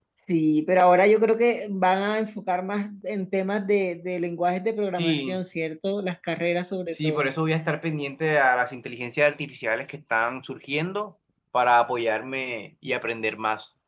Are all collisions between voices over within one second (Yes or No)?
Yes